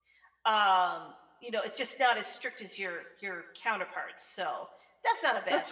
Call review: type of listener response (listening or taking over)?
taking over